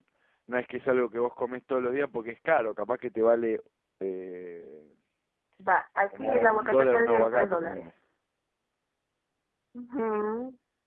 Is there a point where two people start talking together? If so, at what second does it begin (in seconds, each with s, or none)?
6.2 s